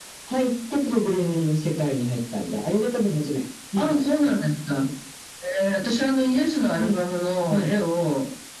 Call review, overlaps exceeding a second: none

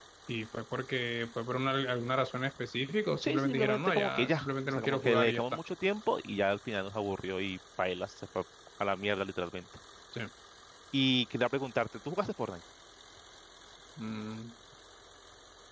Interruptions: present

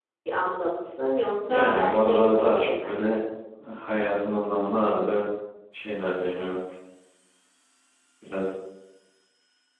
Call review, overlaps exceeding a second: present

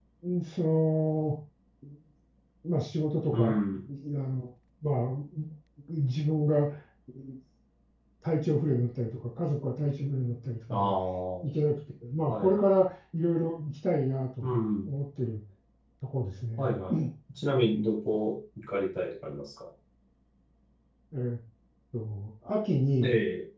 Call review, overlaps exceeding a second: none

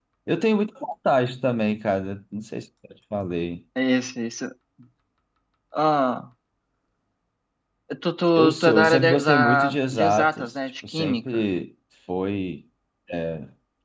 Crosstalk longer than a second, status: present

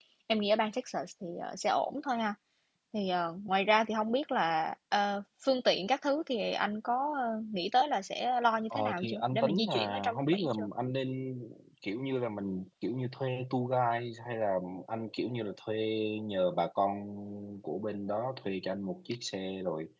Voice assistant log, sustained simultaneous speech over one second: present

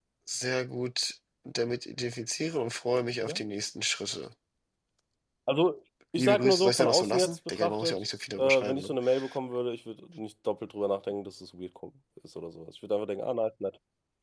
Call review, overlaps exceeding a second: present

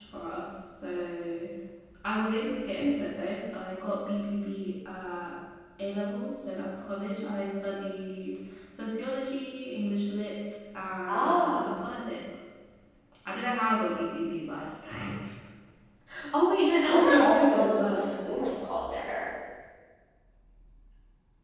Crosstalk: present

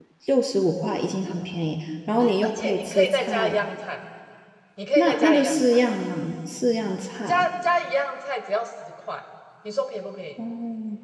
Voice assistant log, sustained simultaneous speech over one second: present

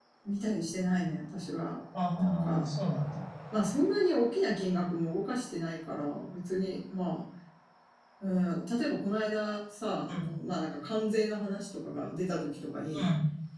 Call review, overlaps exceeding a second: none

